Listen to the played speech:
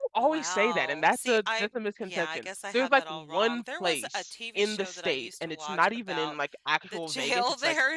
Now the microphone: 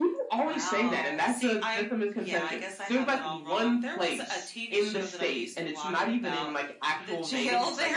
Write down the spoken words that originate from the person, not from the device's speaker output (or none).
none